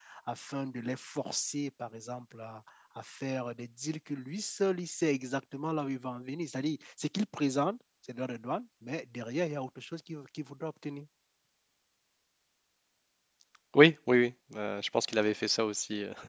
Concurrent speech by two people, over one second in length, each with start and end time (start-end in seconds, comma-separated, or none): none